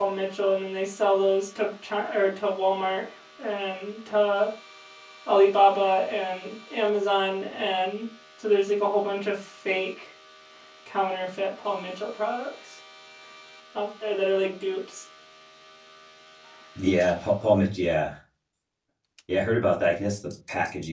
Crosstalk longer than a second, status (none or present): none